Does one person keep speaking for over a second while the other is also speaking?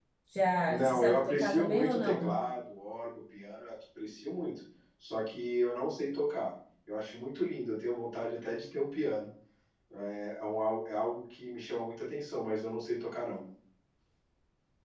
Yes, from 0.7 s

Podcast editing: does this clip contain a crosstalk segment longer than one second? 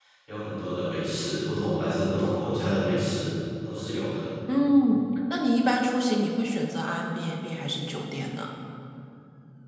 No

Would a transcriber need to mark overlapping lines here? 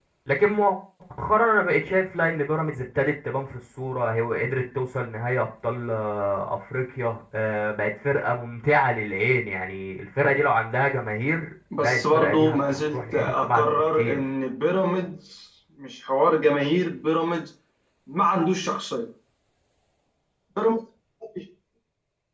Yes, from 11.7 s

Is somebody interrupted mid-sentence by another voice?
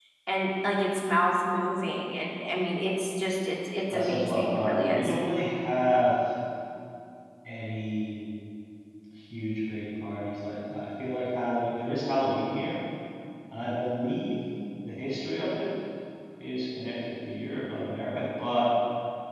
Yes, from 3.9 s

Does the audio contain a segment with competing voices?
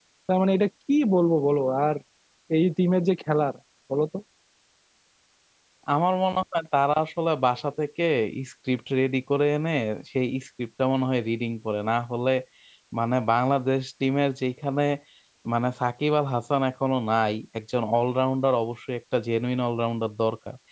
No

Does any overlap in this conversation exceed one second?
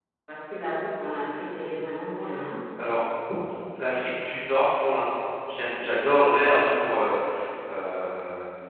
No

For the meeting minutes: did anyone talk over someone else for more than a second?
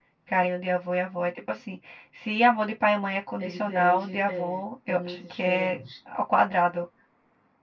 Yes, from 3.4 s

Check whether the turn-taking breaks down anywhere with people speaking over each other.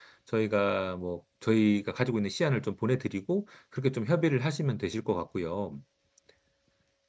No

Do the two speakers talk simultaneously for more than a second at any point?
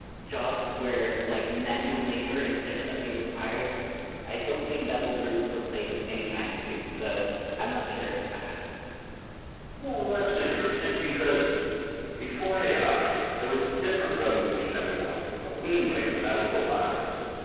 No

